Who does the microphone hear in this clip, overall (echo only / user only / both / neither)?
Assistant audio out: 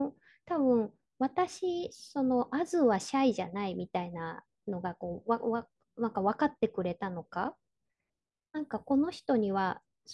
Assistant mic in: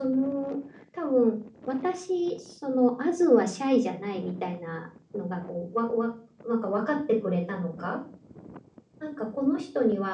echo only